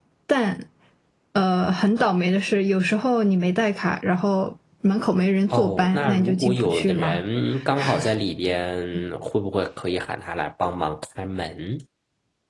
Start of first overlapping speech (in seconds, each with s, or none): 5.5 s